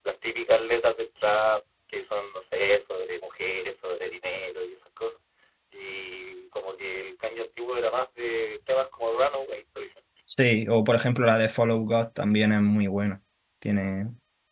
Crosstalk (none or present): none